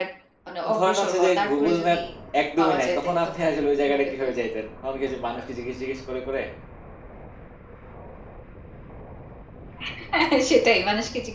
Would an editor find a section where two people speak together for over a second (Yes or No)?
Yes